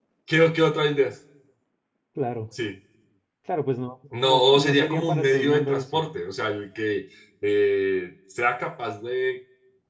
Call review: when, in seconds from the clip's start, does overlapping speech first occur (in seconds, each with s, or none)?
4.2 s